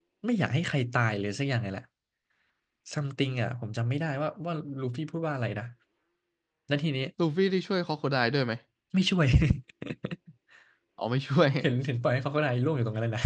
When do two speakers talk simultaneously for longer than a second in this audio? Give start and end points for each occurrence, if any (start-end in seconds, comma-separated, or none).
none